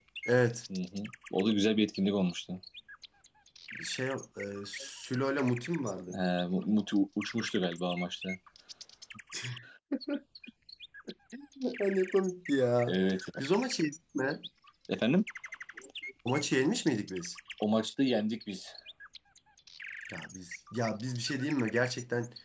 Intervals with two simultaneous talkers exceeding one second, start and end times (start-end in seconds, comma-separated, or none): none